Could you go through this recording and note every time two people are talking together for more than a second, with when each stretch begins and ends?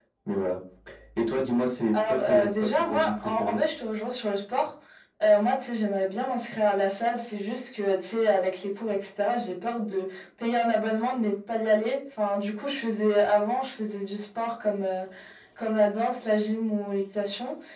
1.9-3.6

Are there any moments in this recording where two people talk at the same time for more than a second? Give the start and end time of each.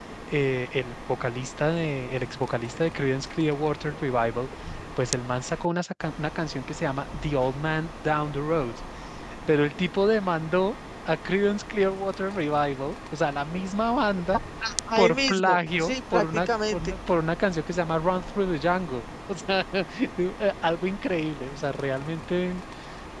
15.0-16.9

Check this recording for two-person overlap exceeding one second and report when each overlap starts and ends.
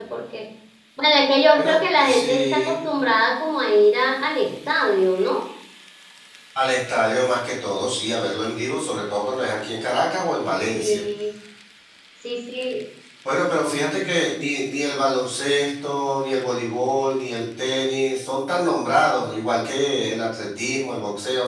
1.6-2.9

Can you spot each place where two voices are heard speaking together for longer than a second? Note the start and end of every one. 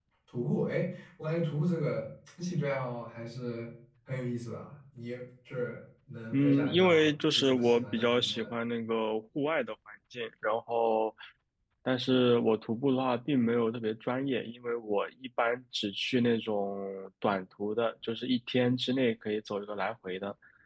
6.3-8.5

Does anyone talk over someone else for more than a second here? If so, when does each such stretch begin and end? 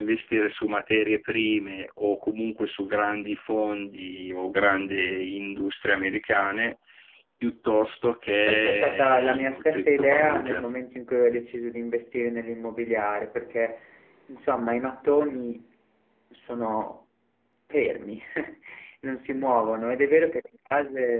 8.5-10.6

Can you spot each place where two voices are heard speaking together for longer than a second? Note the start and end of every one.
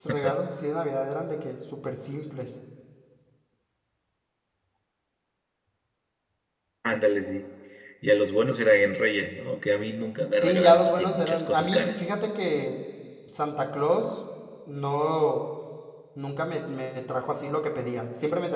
10.3-12.1

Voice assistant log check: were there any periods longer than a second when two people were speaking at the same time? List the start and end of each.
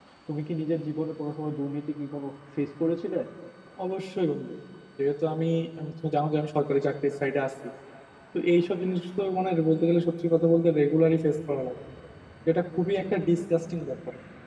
none

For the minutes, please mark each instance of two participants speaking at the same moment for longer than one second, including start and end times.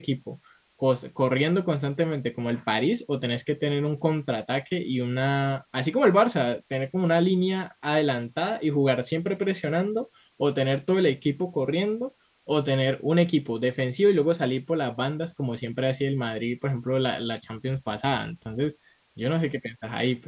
none

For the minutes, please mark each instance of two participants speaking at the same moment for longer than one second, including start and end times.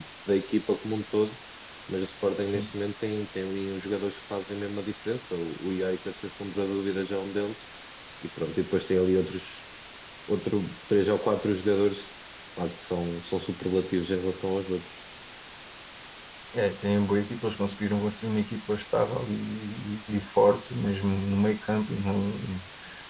none

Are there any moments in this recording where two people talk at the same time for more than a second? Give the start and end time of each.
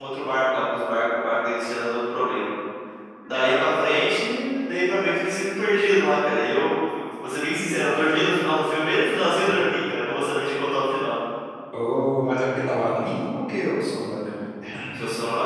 none

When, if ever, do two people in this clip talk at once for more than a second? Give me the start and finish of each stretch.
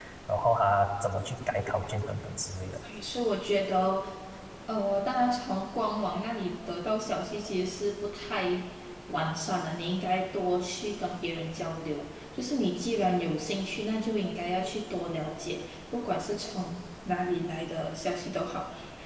none

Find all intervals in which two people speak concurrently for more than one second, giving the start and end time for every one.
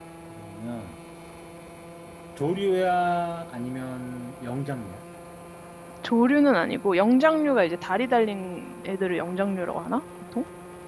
none

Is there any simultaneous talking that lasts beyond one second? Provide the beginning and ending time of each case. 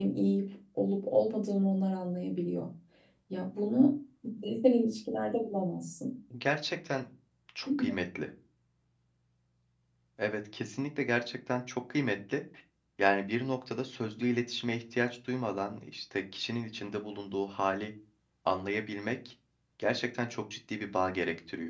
none

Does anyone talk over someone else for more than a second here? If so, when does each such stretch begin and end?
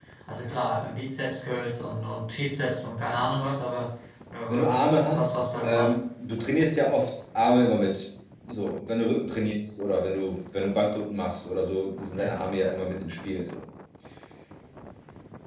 4.5-5.9

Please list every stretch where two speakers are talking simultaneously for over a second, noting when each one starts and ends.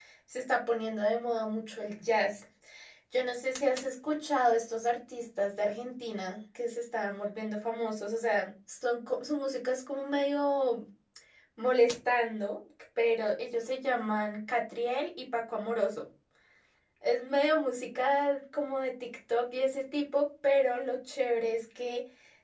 none

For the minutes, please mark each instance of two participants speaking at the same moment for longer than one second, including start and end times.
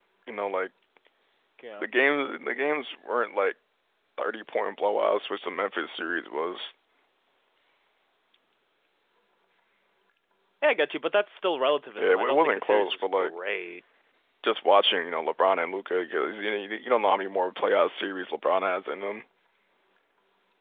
12.0-13.3

